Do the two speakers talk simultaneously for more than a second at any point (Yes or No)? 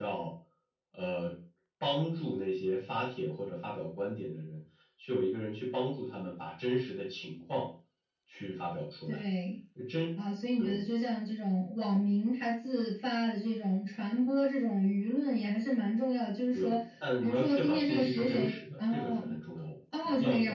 Yes